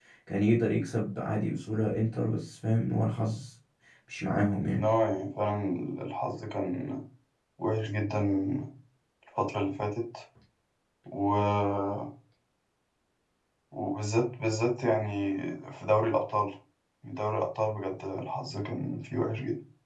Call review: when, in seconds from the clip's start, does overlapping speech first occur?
none

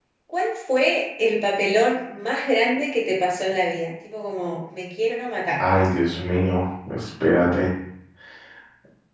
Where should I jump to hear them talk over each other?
none

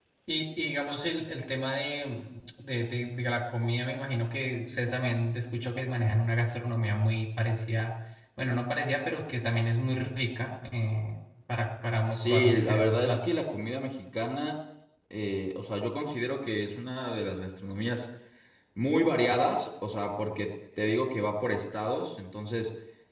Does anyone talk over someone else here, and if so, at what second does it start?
12.1 s

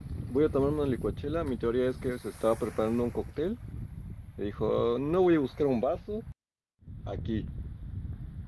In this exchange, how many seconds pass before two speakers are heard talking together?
none

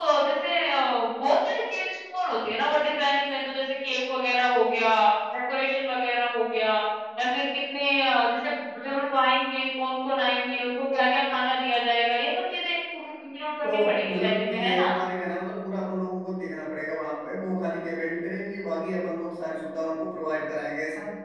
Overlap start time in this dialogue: 13.6 s

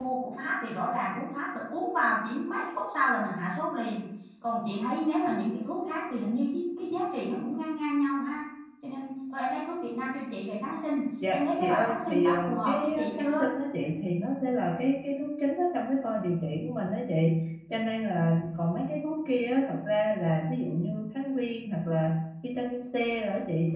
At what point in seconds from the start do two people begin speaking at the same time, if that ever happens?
11.2 s

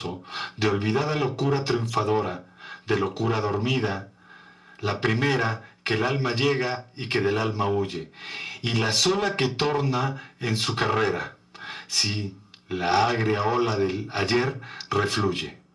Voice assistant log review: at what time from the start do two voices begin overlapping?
none

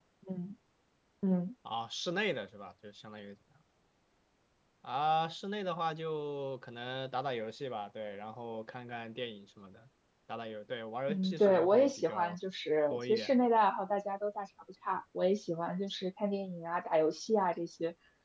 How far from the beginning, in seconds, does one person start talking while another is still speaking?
11.1 s

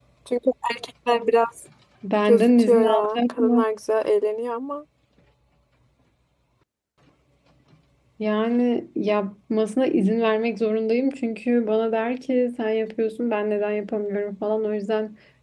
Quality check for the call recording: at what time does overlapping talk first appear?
2.2 s

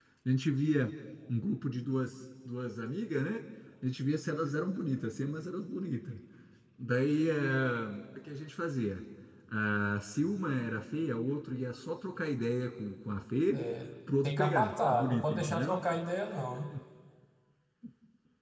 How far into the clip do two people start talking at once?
14.2 s

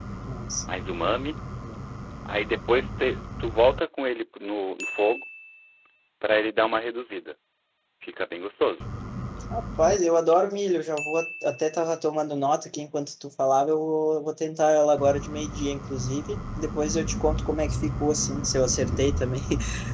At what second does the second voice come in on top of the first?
none

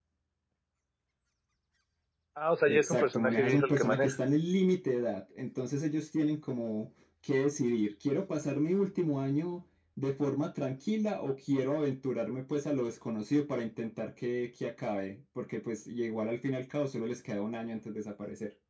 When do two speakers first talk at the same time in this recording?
2.7 s

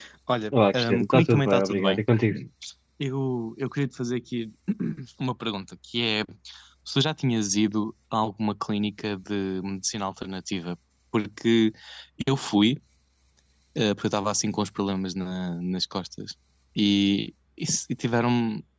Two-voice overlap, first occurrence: 0.7 s

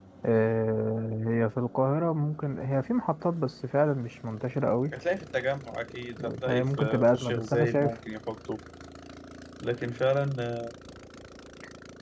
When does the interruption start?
6.5 s

